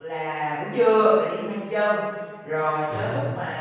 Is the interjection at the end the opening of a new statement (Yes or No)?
No